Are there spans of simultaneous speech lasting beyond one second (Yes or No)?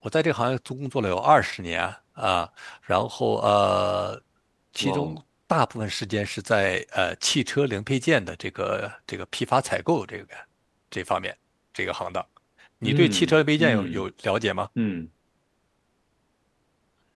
Yes